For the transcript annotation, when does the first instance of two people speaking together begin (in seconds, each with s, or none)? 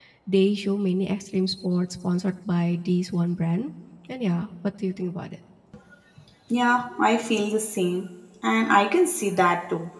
none